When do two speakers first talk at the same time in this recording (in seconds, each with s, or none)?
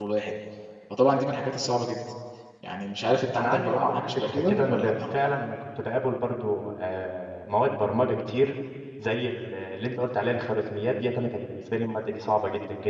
3.4 s